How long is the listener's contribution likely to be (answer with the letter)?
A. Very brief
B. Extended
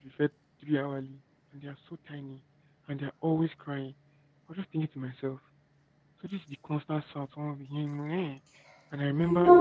A